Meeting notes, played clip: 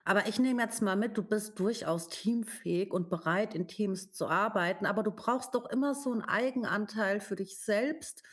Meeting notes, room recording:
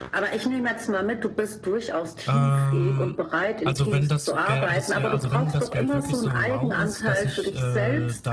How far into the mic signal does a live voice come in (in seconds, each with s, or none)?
2.3 s